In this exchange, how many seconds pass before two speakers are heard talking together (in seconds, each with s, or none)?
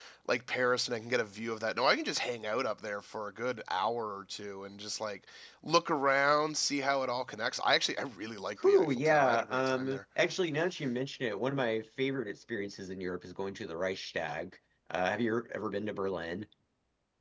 8.6 s